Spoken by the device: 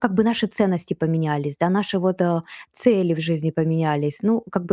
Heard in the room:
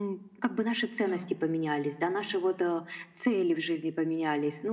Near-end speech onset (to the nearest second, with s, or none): 1 s